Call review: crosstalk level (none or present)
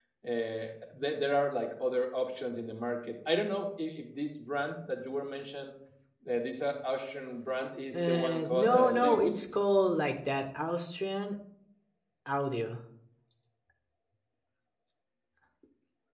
present